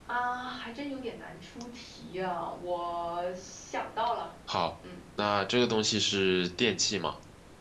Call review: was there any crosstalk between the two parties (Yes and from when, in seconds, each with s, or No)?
No